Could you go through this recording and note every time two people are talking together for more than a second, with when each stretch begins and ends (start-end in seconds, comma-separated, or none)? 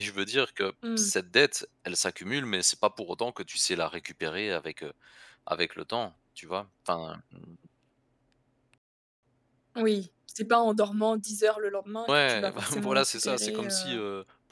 12.1-13.9